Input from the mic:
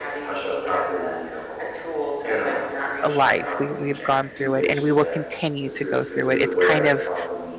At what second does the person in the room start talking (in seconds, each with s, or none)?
3.1 s